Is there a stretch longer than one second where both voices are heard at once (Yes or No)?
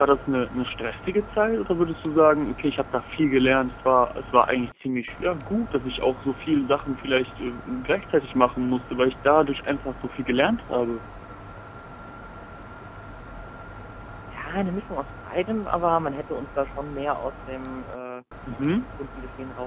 No